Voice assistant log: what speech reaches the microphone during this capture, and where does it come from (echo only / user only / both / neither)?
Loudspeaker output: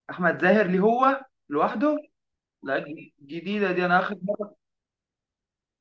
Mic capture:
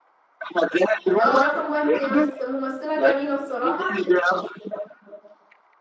both